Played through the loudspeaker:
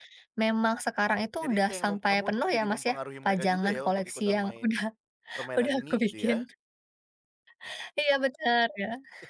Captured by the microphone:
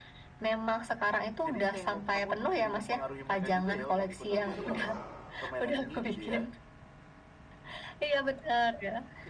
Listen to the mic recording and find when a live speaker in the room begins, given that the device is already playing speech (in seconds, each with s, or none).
4.3 s